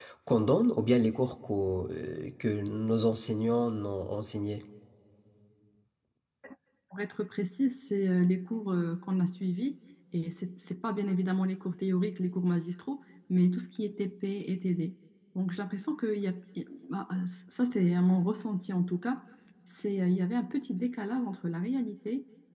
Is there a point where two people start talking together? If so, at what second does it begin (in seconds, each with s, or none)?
none